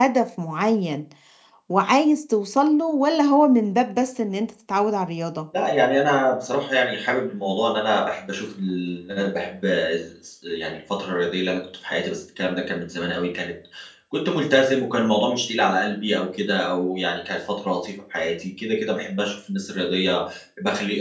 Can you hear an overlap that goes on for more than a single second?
No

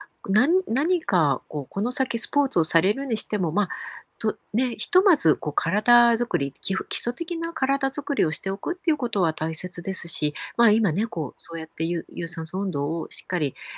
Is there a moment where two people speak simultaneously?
No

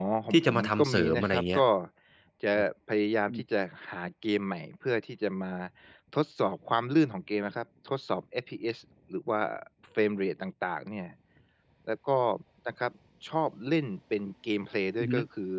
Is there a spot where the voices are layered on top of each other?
Yes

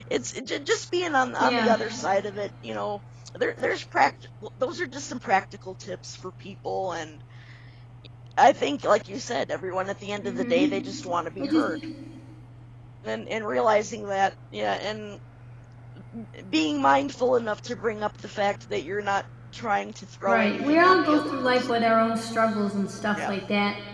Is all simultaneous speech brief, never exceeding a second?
No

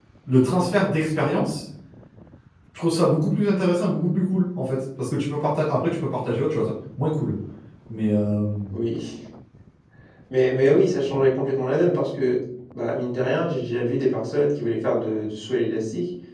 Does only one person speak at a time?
Yes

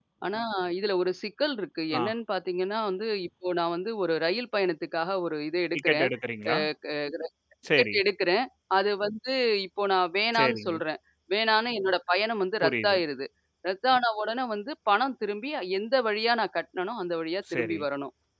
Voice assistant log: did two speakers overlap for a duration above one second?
No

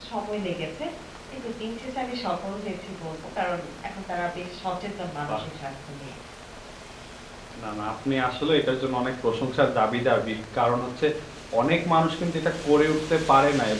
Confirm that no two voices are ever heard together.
Yes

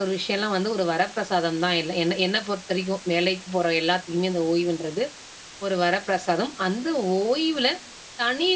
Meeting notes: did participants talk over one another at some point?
No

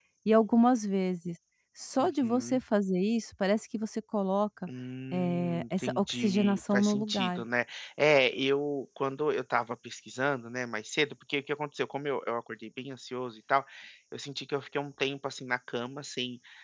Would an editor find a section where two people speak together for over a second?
Yes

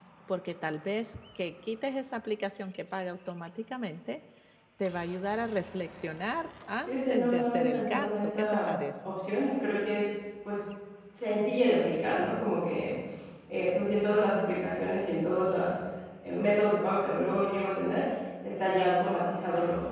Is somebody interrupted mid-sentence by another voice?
Yes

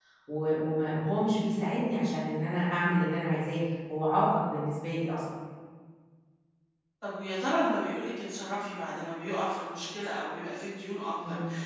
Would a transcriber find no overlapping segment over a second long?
Yes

